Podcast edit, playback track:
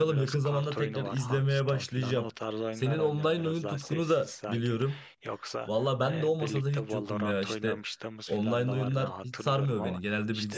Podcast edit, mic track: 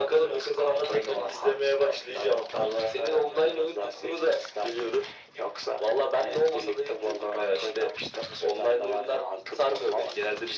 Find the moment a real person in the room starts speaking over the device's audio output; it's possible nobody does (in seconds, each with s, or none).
none